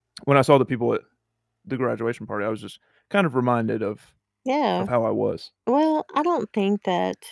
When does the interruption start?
none

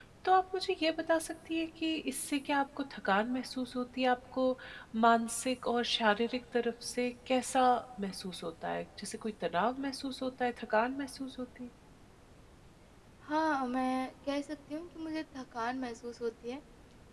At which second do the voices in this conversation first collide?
none

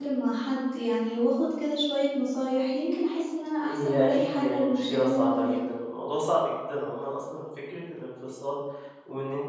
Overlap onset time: 3.6 s

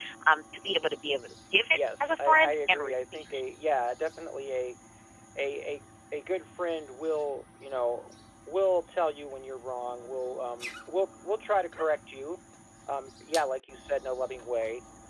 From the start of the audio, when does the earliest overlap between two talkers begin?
1.7 s

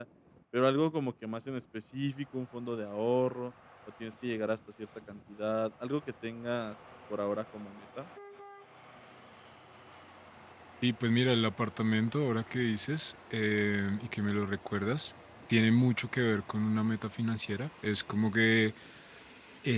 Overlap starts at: none

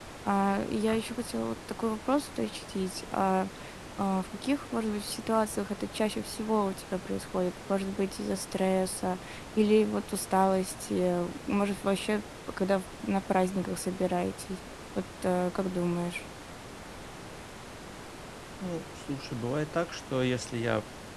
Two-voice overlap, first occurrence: none

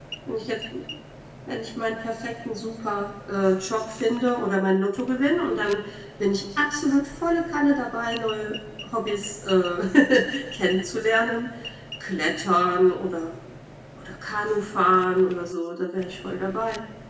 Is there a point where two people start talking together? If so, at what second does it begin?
none

